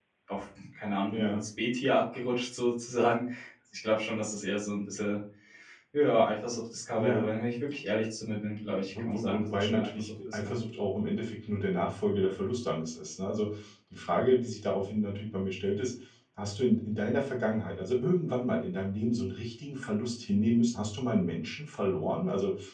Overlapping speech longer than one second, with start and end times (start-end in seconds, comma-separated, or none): 8.9-10.5